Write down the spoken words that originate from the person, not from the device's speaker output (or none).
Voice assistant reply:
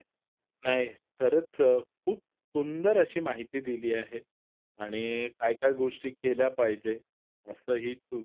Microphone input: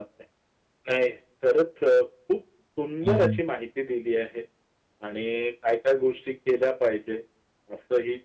हं, हं.